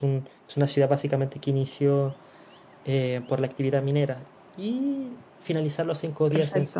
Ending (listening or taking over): listening